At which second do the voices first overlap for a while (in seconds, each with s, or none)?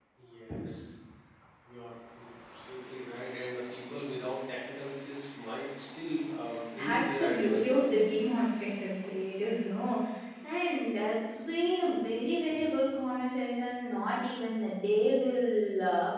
6.8 s